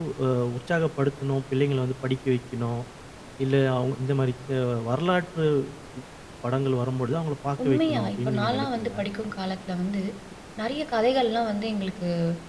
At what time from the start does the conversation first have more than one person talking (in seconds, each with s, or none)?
7.6 s